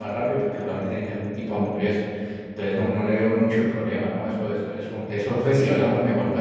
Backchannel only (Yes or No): No